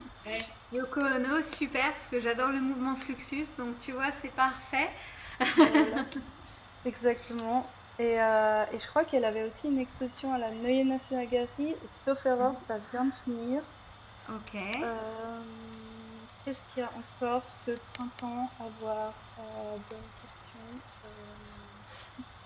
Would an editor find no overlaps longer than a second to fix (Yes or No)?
Yes